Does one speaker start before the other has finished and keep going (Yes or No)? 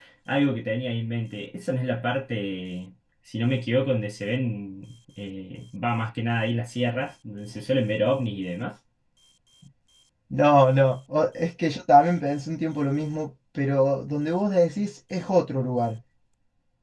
No